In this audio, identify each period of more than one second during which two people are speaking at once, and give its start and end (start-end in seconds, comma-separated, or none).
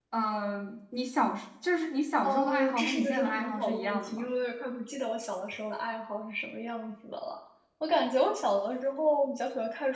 2.2-4.3